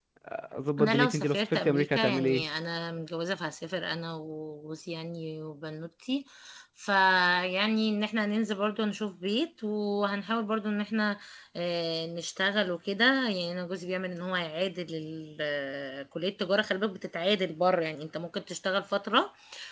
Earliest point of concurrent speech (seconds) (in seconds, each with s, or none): 0.8 s